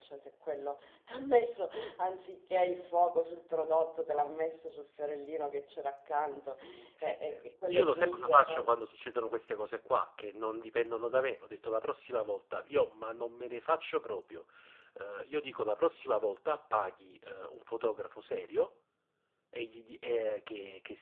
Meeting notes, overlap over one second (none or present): present